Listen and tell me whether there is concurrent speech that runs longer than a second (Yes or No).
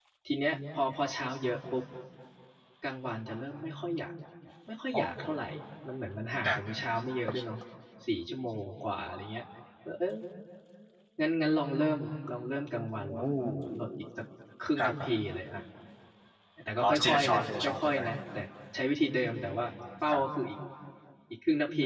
Yes